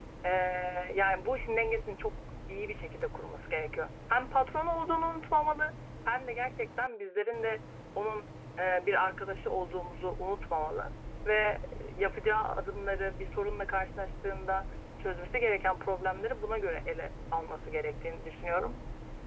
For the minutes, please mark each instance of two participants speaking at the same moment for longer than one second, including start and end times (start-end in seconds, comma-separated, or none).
none